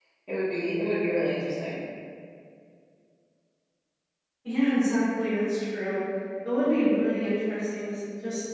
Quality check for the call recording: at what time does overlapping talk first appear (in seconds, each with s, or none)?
none